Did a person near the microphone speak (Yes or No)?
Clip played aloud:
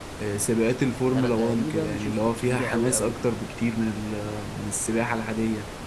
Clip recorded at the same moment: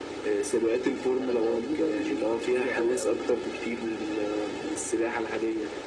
No